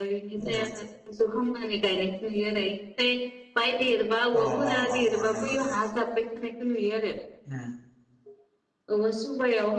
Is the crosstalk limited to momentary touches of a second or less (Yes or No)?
No